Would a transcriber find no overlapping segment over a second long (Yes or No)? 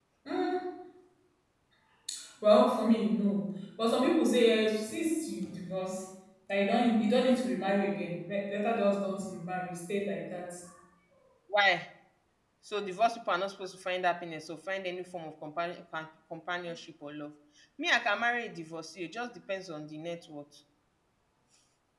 Yes